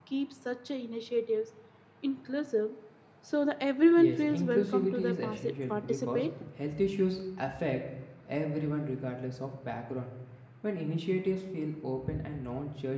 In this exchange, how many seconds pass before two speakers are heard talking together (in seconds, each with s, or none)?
4.0 s